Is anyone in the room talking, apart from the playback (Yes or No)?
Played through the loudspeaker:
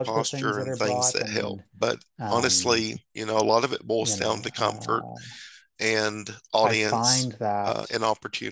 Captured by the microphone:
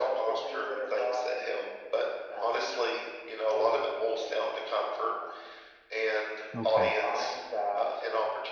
Yes